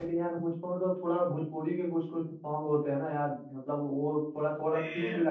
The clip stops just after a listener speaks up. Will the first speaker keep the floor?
Yes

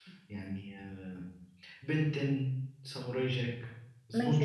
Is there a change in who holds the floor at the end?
Yes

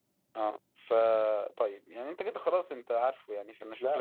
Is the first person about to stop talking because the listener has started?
Yes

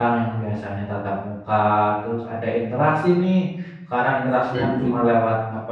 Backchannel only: Yes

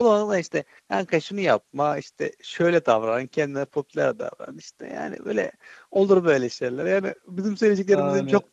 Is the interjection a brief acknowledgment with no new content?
Yes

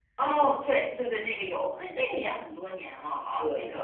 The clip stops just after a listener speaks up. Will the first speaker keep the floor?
No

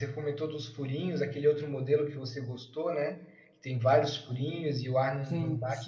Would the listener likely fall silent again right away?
Yes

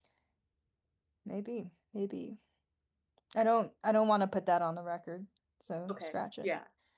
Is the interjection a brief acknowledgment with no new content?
No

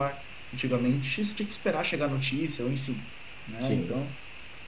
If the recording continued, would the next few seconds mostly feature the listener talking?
No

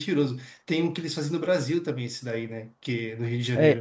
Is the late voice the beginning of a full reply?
Yes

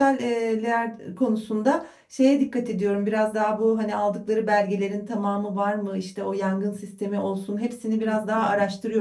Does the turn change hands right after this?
No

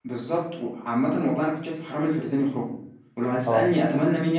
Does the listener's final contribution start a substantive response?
No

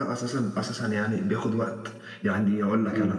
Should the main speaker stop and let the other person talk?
No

